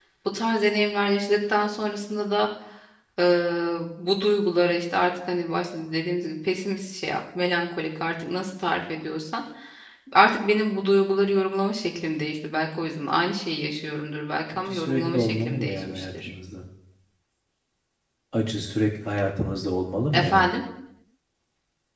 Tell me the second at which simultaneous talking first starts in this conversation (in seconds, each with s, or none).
14.7 s